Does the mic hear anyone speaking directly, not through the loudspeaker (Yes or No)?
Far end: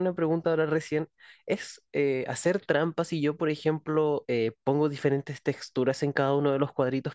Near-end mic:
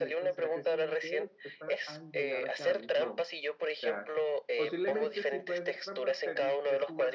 Yes